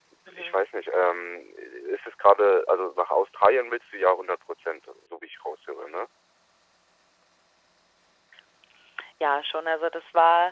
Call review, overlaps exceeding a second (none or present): none